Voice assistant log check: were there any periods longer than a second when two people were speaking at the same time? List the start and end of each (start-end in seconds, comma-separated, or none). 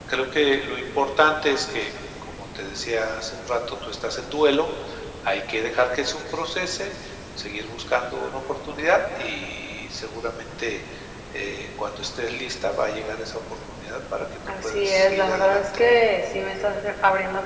14.6-15.9